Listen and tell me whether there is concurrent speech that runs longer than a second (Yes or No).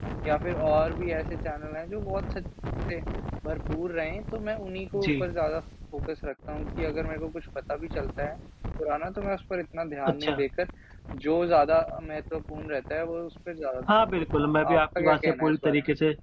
Yes